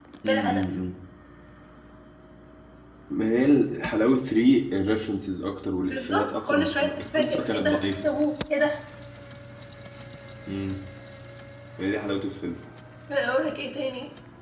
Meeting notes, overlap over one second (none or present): present